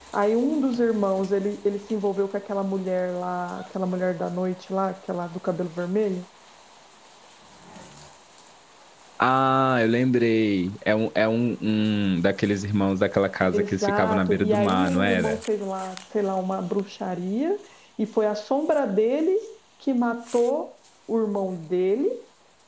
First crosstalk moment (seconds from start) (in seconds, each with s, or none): 13.5 s